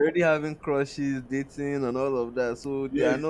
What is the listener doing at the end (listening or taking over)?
taking over